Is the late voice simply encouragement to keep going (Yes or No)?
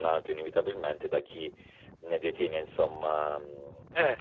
Yes